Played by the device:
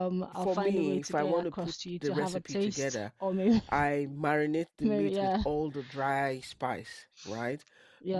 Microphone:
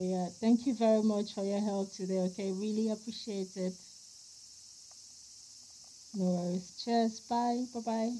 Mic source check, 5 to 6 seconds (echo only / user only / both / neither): neither